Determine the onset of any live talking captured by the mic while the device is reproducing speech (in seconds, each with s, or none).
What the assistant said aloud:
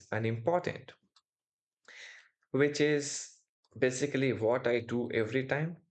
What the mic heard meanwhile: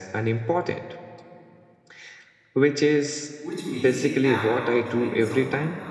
3.4 s